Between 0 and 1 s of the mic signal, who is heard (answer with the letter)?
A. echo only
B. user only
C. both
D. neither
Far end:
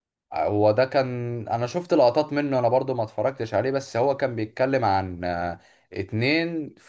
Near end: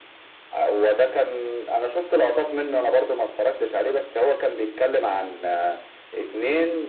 A